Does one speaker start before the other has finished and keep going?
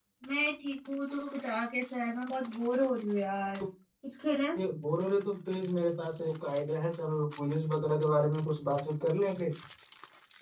No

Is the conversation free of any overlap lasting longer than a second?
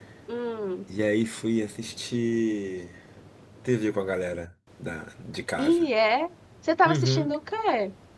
Yes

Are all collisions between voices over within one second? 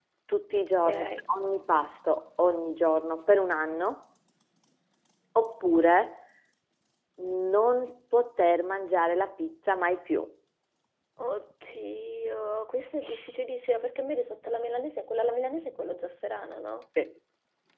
Yes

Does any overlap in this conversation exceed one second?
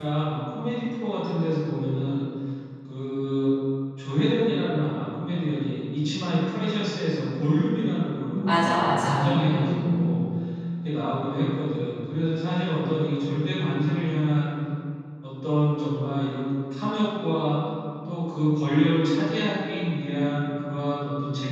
Yes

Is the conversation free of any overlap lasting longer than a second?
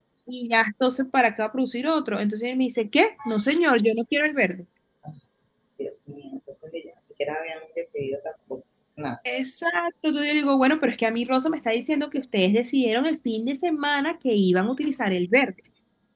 Yes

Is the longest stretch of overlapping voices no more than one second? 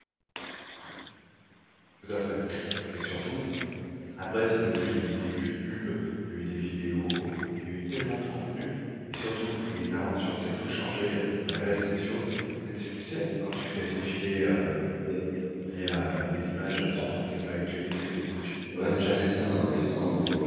Yes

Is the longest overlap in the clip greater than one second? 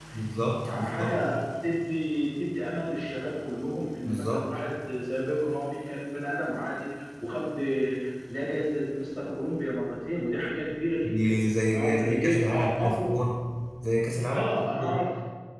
Yes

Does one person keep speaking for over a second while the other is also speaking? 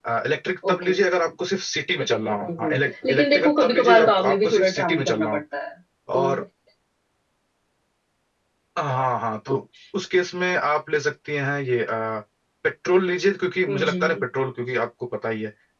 Yes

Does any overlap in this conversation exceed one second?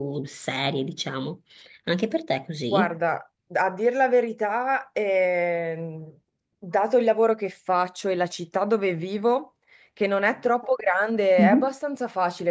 No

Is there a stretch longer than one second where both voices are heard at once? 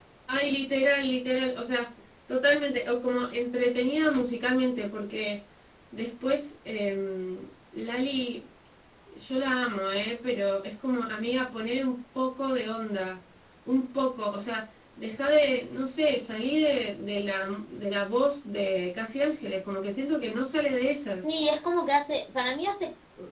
No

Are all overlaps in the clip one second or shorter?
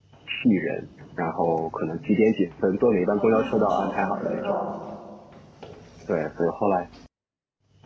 No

